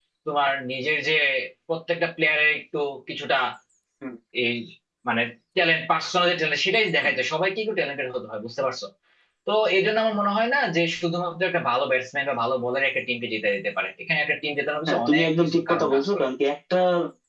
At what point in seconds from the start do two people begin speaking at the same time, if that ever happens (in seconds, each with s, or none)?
14.9 s